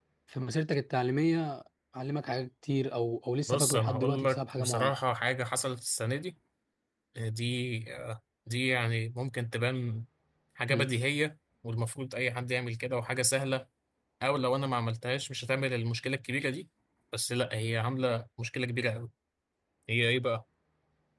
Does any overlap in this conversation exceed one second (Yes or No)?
Yes